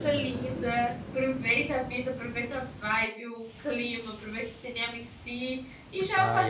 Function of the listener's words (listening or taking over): listening